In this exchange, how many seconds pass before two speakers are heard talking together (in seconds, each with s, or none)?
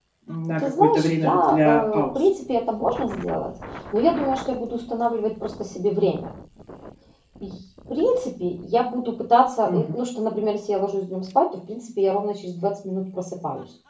0.6 s